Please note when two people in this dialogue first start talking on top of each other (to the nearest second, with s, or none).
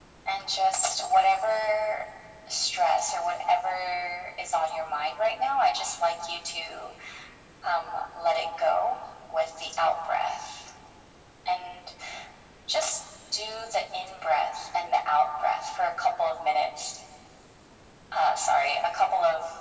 none